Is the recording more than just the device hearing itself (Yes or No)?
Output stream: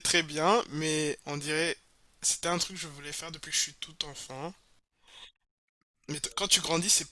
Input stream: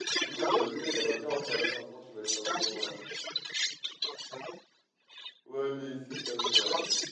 Yes